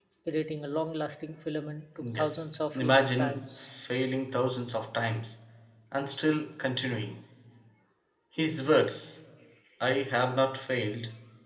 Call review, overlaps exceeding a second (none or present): present